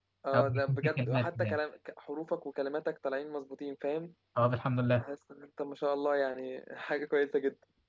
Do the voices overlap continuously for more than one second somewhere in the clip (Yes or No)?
Yes